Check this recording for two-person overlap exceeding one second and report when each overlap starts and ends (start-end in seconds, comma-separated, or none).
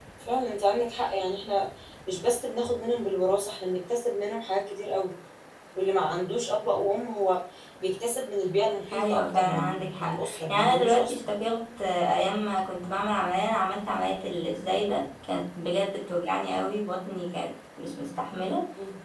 8.9-11.2